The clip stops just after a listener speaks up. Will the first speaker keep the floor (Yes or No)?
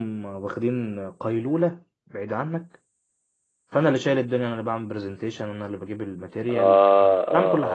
No